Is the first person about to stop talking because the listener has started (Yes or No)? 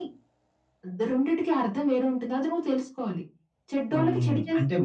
Yes